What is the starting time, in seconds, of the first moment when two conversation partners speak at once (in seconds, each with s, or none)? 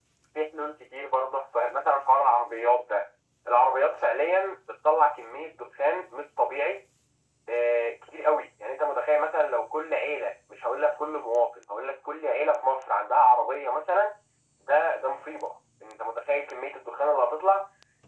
none